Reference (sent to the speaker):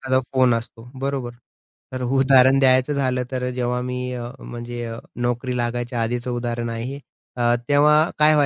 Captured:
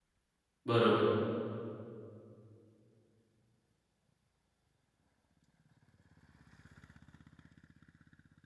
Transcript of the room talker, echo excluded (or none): बरोबर.